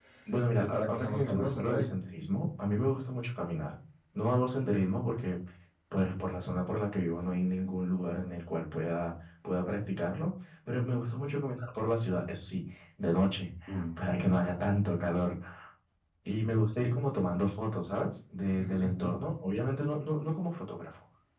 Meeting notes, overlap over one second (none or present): present